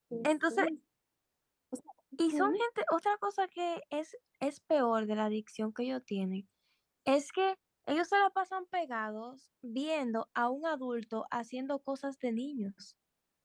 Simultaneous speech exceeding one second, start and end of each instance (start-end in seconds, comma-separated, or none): none